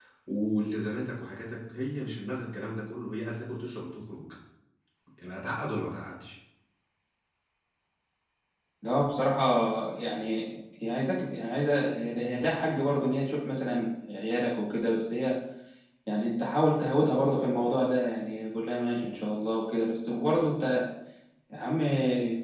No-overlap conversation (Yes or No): Yes